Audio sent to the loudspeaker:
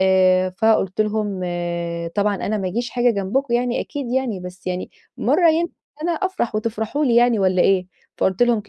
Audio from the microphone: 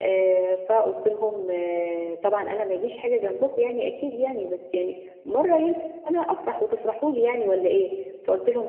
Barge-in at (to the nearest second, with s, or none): none